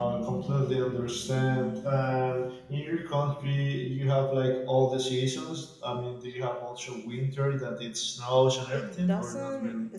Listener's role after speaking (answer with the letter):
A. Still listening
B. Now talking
B